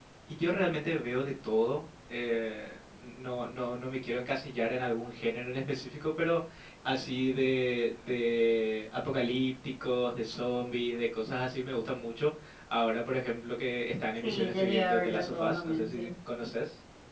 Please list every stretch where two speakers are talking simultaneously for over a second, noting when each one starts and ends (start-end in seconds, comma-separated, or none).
14.2-16.1